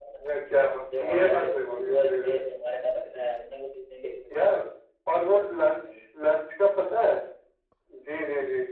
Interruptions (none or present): present